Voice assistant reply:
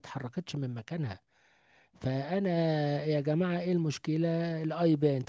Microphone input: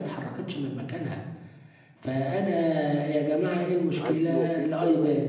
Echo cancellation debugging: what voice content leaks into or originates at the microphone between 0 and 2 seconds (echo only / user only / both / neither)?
echo only